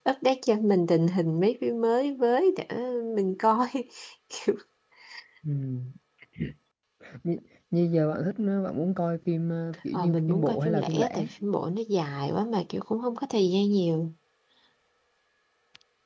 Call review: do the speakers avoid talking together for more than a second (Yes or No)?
No